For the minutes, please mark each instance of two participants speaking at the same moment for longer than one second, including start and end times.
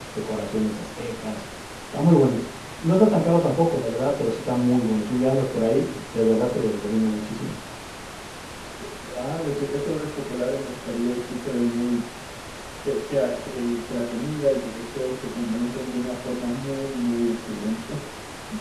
none

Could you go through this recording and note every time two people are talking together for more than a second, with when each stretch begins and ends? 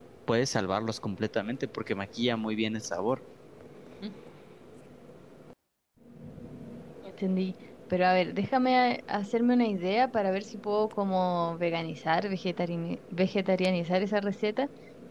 none

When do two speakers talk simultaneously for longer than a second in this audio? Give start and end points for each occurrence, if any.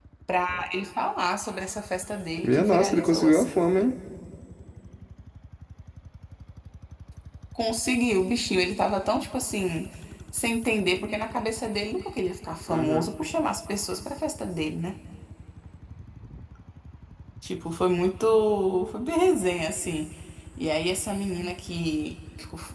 2.4-3.6

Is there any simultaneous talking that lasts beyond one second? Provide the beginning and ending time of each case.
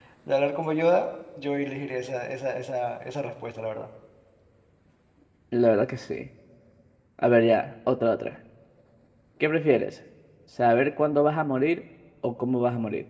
none

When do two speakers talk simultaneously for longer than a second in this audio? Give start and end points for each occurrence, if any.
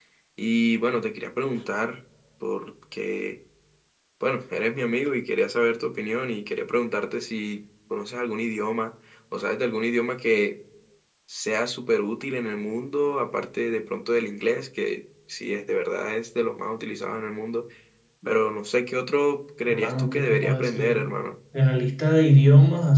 19.6-21.0

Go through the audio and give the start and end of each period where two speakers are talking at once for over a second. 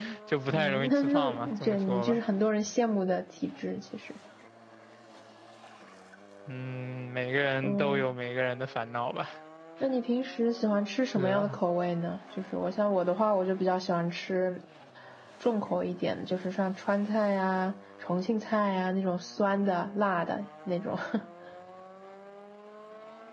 0.5-2.2

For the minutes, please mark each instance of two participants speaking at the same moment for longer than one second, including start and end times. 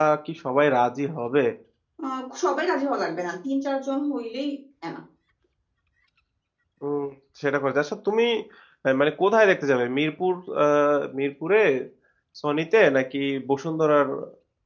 none

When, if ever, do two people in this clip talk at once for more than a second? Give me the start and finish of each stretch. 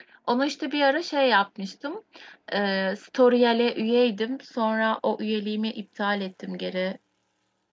none

